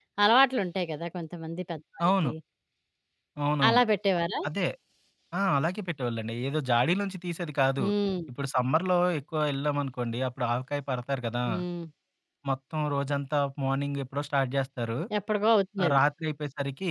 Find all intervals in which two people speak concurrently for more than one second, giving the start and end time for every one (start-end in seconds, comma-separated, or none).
none